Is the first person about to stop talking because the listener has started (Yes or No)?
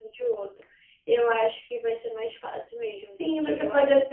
Yes